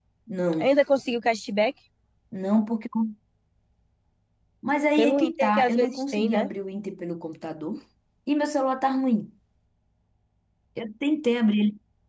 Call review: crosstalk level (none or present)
present